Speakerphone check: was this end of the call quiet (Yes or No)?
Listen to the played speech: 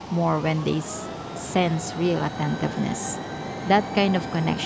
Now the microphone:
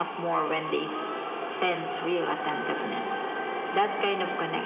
Yes